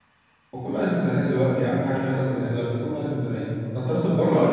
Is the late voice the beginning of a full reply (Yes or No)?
Yes